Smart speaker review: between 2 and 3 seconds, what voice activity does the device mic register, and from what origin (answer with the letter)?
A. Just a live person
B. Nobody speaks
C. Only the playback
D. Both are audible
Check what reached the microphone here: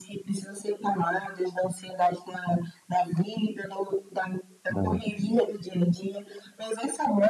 C